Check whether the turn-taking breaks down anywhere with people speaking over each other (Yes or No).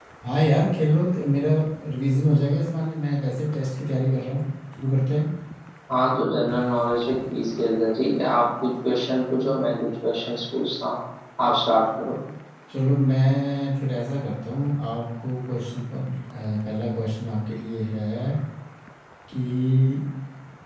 No